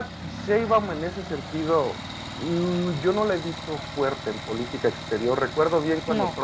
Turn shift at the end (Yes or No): No